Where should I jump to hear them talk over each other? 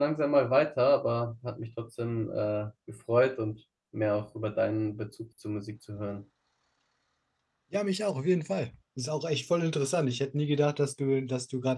none

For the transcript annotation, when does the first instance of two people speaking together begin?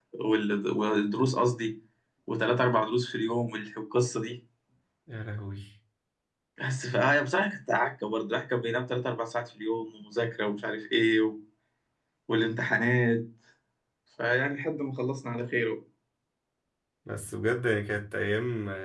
none

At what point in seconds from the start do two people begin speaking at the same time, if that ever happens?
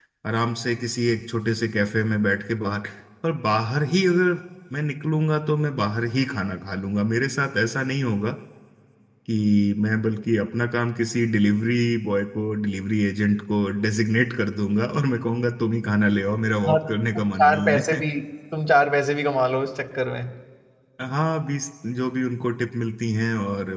16.6 s

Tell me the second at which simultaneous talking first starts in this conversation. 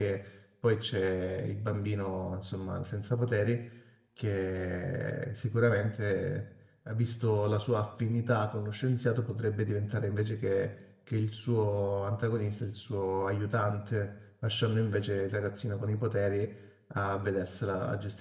none

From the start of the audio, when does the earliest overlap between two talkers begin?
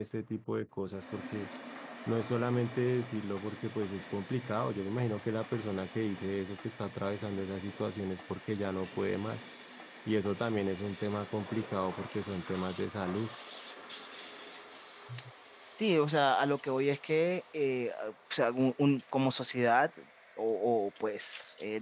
none

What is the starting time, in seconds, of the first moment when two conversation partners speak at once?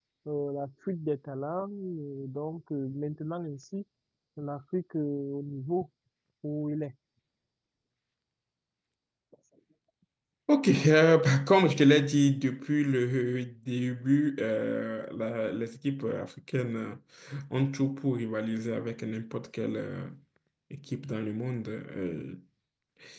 none

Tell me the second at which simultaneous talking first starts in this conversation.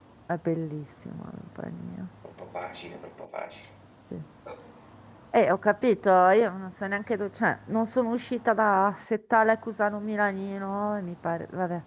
none

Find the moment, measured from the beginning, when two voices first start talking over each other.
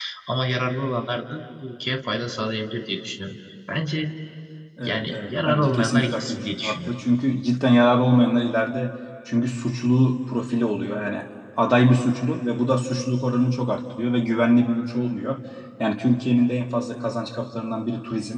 4.8 s

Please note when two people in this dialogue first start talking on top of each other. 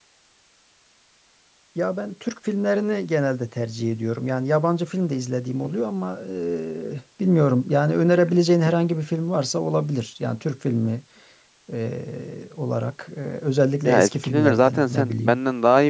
13.8 s

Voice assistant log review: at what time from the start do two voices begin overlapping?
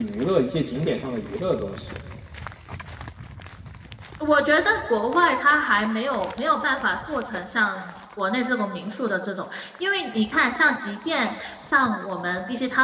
none

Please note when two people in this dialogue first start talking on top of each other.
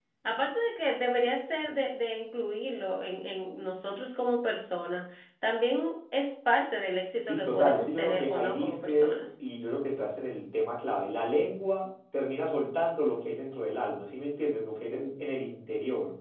7.2 s

